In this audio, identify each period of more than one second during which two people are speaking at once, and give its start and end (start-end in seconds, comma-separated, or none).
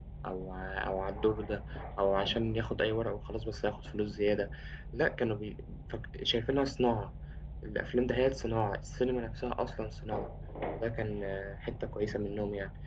none